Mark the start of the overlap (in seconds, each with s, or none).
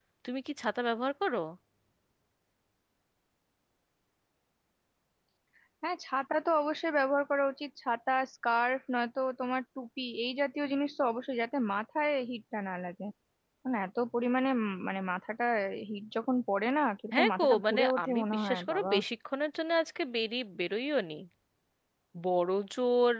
17.1 s